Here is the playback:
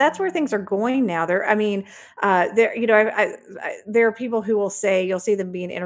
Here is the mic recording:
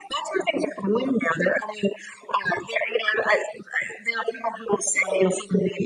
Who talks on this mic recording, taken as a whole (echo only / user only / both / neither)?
echo only